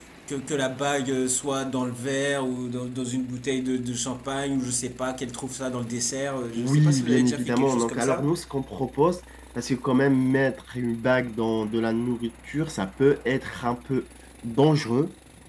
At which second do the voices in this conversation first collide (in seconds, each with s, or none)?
6.5 s